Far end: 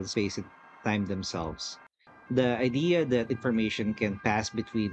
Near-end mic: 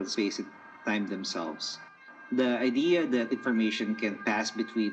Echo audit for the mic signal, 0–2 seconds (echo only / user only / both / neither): echo only